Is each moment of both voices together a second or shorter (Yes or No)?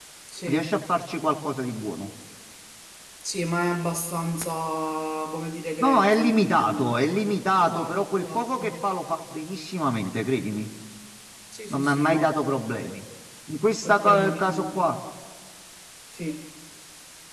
No